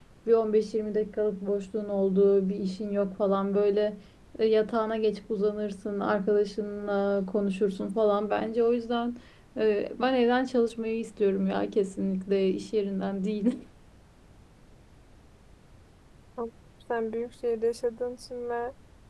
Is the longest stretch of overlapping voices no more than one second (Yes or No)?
Yes